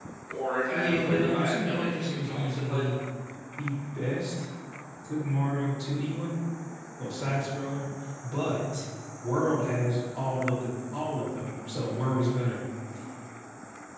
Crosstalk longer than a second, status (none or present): present